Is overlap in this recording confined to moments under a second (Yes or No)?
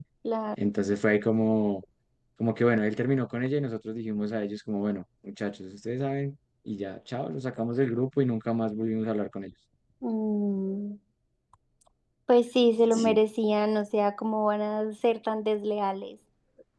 Yes